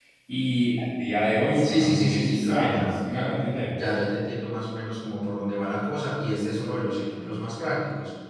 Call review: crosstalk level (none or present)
present